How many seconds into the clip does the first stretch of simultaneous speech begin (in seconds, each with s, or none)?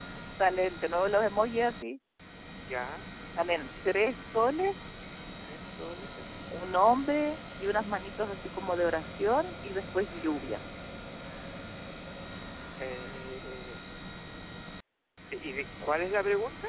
none